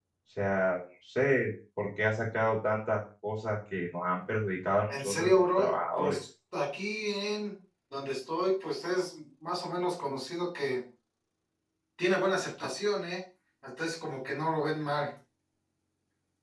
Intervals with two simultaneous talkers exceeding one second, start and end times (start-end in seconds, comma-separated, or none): 4.9-6.2